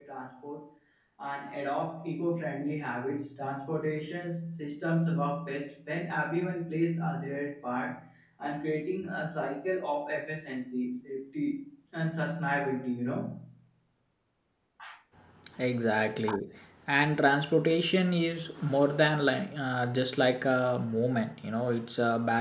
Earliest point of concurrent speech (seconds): none

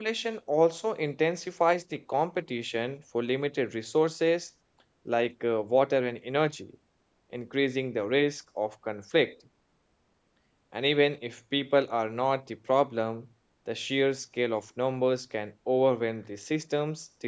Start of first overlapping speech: none

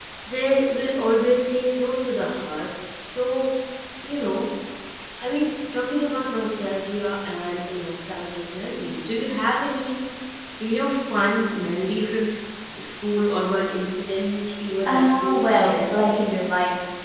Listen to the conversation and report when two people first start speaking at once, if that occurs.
14.8 s

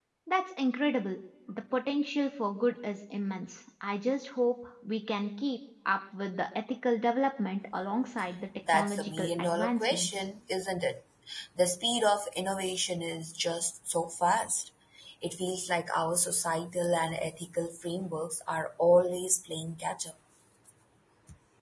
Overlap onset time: 8.7 s

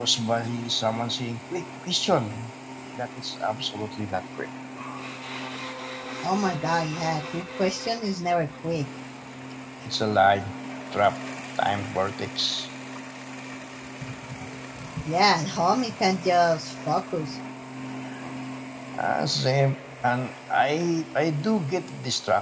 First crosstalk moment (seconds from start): none

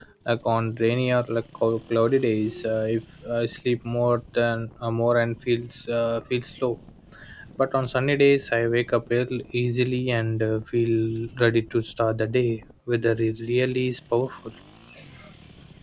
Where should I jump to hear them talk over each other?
none

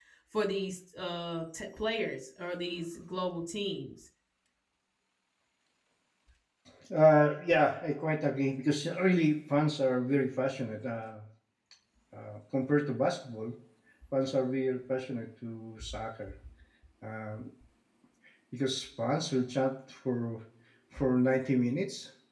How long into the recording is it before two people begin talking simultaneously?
none

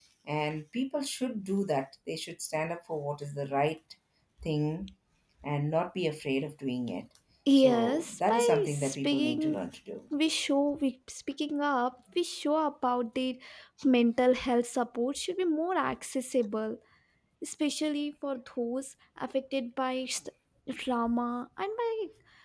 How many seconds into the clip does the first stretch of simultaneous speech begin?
7.5 s

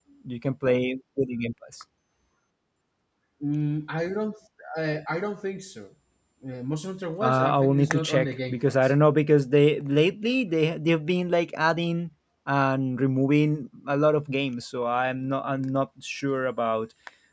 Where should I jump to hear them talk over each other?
7.2 s

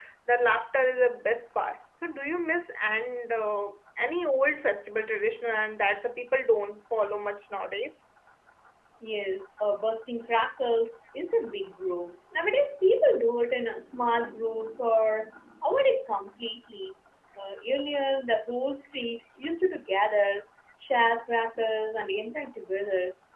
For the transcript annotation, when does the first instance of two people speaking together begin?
none

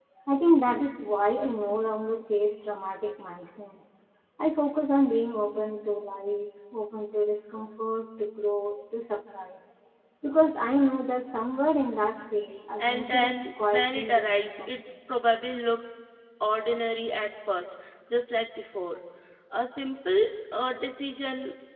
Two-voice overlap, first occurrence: 12.8 s

